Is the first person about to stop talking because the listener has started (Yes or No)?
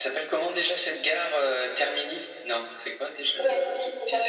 Yes